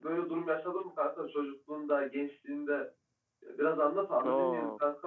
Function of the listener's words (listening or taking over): taking over